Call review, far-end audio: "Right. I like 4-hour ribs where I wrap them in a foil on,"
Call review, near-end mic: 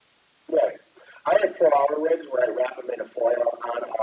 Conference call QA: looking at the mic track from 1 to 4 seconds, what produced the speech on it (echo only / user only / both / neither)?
echo only